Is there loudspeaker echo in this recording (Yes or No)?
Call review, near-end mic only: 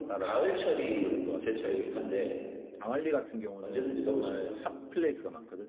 Yes